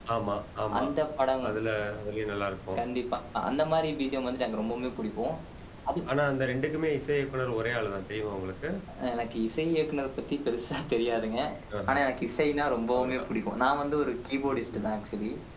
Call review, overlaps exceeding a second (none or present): none